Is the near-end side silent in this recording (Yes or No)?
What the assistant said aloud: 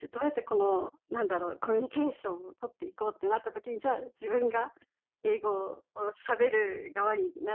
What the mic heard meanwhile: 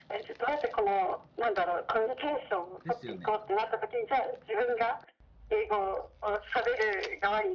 No